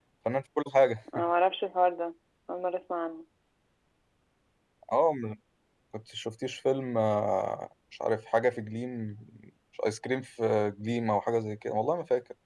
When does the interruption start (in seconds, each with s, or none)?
none